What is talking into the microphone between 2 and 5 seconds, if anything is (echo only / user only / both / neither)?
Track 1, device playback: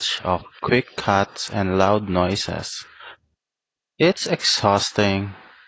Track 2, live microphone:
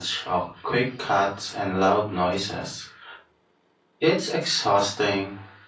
echo only